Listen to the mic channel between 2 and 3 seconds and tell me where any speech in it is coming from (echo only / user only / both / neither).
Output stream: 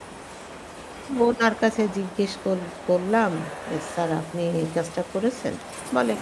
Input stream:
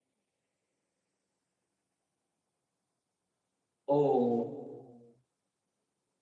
neither